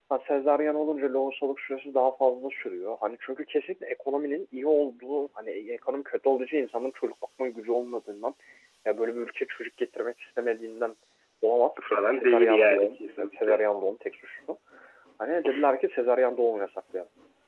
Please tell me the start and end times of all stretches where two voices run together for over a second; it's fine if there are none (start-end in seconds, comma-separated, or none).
11.8-13.6